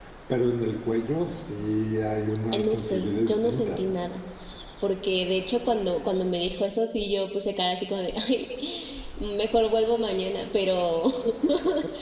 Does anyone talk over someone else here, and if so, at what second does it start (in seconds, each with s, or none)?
2.5 s